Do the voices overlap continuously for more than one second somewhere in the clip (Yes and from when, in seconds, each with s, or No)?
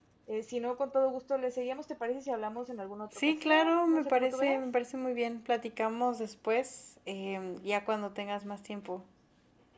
Yes, from 3.2 s